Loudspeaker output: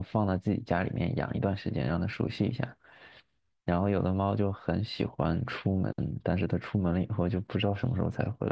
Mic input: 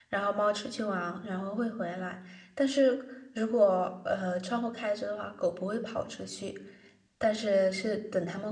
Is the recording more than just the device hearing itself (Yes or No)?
Yes